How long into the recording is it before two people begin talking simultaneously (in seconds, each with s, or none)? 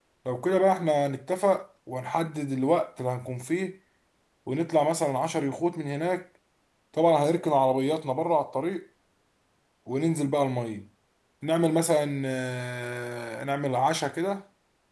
none